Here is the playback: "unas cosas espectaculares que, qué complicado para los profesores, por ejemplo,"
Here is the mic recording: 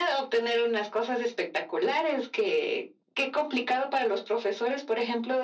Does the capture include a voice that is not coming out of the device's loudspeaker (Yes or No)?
No